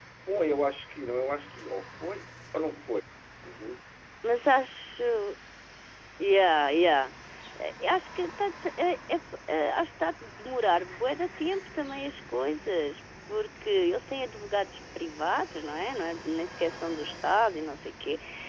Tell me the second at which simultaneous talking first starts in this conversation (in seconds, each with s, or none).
none